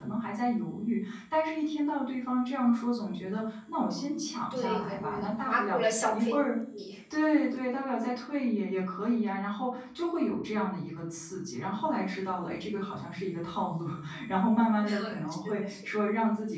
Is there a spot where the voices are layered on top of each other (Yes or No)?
Yes